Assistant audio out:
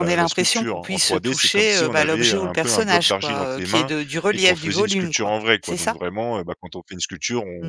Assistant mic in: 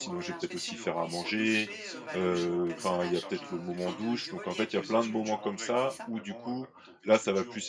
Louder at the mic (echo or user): user